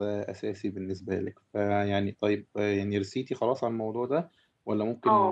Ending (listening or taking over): taking over